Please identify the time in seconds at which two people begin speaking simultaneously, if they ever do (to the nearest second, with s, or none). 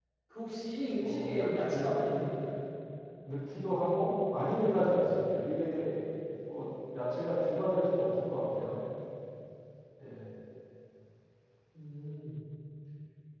1 s